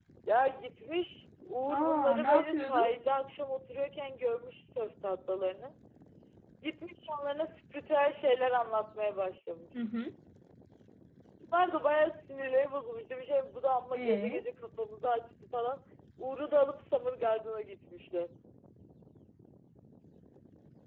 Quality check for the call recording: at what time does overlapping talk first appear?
1.7 s

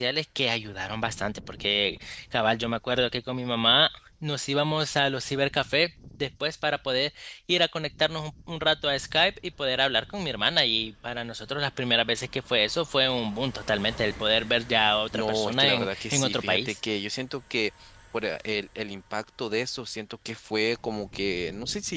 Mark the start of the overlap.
15.1 s

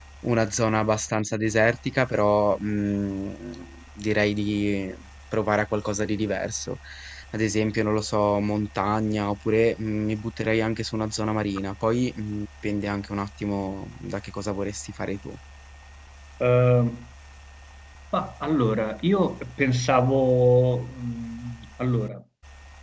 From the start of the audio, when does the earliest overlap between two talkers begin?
none

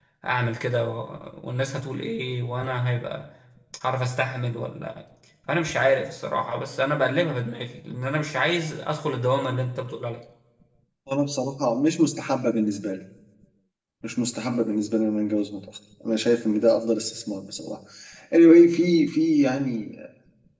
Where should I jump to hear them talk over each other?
none

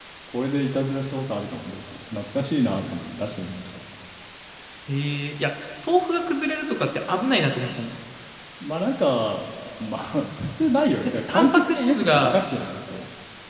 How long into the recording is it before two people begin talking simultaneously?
11.0 s

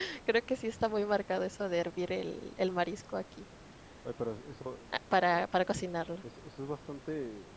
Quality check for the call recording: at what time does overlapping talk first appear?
none

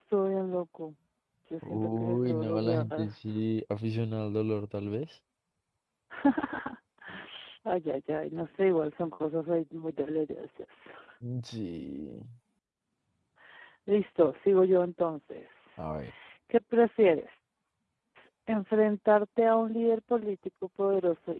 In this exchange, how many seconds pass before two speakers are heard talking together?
1.6 s

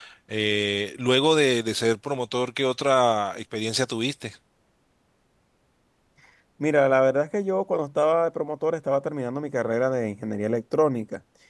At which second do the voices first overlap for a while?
none

